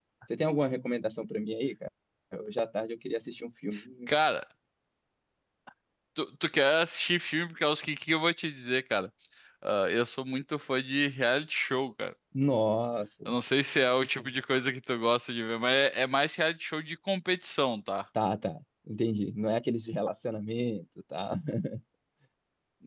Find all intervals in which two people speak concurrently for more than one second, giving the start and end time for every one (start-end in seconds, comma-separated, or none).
none